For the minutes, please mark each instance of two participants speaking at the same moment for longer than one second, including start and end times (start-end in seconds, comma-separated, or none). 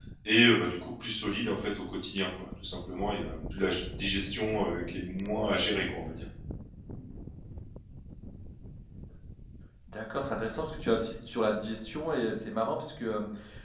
none